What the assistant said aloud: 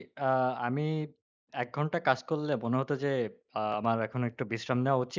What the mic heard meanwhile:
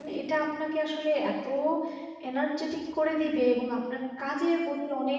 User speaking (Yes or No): Yes